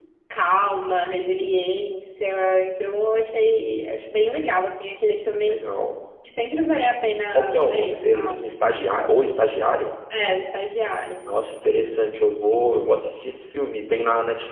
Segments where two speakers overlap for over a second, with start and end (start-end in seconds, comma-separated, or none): 7.3-8.5